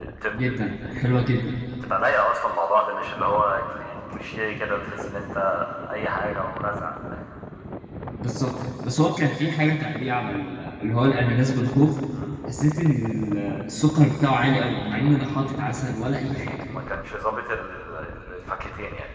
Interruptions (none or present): none